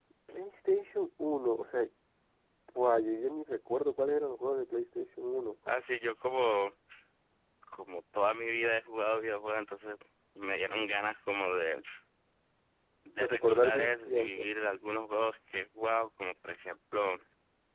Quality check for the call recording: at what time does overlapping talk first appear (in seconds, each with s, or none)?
13.2 s